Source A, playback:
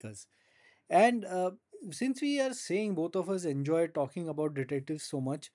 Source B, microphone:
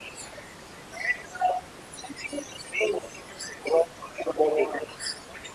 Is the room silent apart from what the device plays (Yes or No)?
Yes